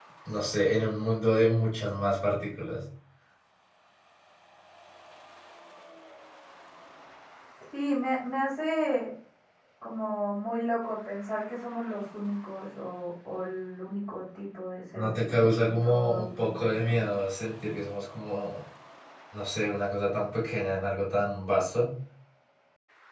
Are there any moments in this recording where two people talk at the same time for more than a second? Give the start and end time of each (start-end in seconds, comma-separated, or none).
14.9-17.0